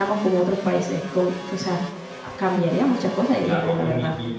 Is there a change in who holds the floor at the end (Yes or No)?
Yes